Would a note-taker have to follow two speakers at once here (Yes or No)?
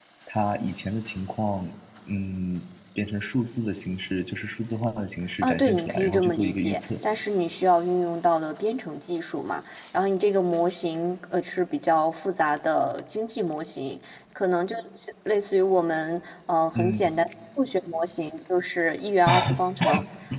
Yes